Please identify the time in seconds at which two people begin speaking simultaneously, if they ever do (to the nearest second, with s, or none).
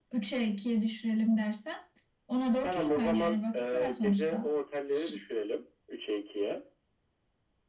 3 s